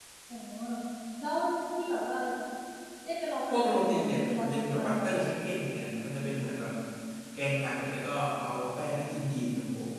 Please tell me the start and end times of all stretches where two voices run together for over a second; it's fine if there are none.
3.5-5.3

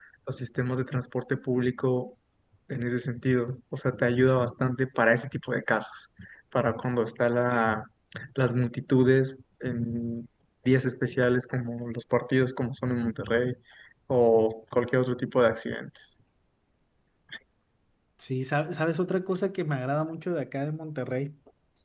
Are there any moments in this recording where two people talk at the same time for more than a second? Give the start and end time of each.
none

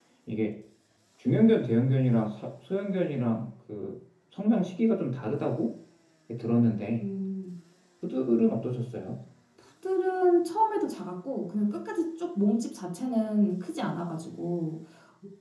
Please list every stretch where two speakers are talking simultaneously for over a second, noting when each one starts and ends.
none

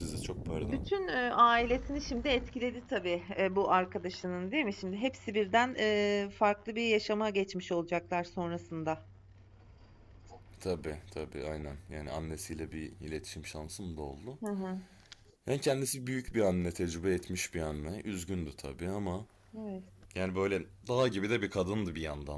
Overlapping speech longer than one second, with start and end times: none

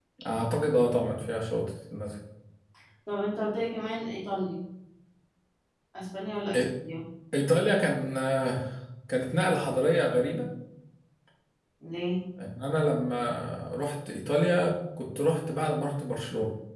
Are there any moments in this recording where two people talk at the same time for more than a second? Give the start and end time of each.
none

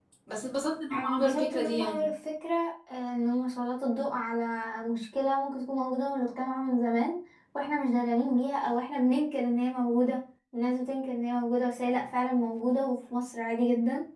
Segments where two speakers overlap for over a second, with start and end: 0.9-2.1

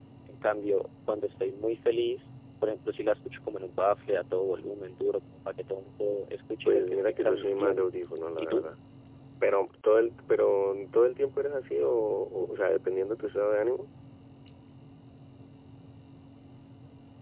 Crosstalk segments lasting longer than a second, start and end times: 6.6-7.9

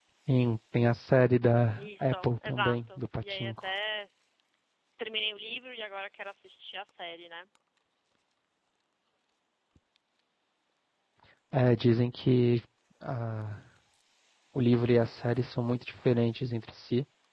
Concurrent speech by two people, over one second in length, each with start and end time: 1.7-3.7

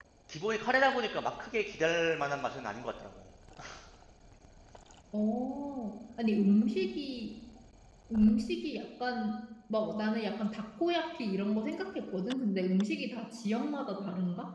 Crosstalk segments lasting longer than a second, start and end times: none

